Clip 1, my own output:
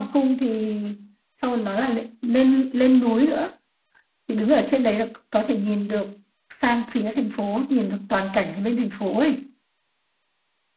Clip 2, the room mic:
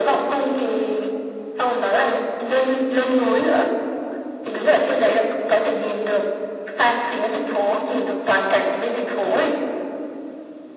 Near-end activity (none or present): none